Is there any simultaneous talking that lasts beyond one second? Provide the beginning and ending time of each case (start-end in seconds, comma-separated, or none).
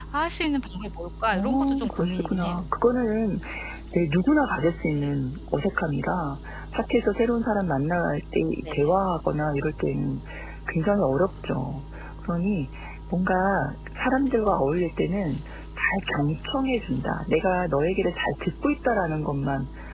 1.3-2.6